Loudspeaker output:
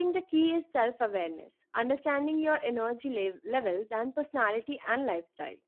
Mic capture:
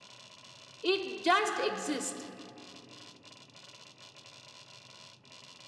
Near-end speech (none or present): present